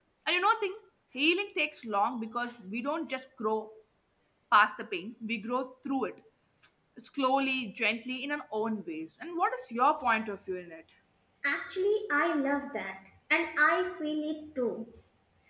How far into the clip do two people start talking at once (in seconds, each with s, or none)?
none